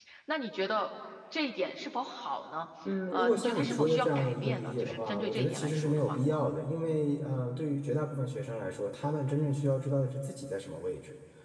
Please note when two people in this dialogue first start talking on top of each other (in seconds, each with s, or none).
3.1 s